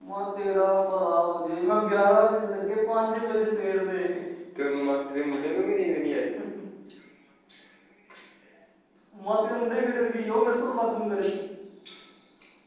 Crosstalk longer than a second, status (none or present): none